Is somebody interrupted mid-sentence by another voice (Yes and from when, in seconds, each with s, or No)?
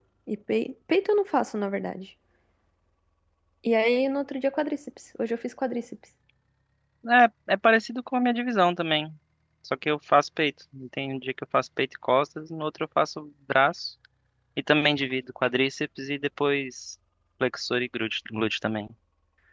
No